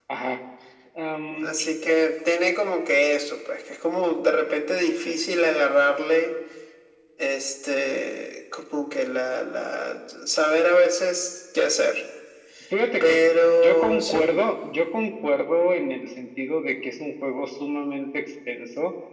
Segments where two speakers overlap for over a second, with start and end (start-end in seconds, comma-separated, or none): 13.0-14.4